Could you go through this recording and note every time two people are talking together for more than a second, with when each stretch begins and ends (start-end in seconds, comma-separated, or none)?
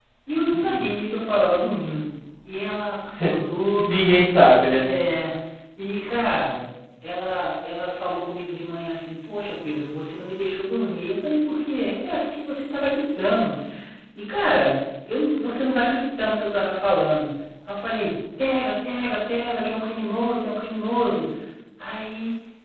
none